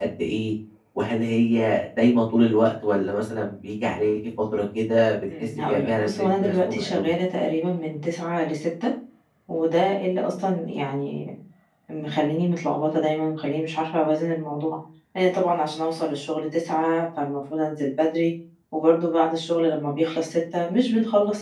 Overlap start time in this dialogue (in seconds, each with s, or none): 5.3 s